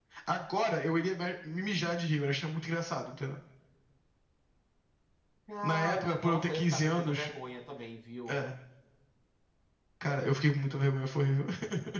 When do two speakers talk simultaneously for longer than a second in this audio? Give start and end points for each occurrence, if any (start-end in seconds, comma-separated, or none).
5.6-7.3